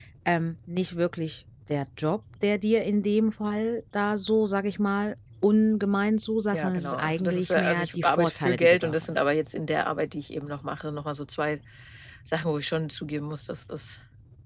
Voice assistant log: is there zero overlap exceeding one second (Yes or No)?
No